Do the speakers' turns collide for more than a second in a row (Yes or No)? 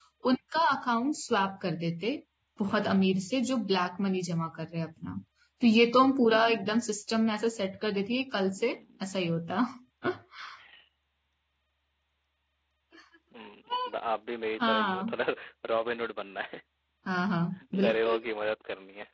No